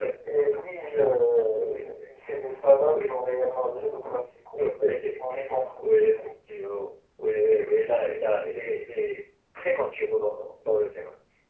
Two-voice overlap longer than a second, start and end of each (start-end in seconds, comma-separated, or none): none